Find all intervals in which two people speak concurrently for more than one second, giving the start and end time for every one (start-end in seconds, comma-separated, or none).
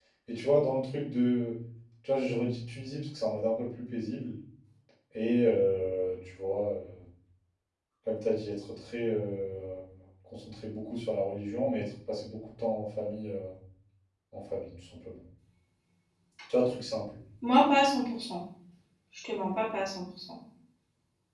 none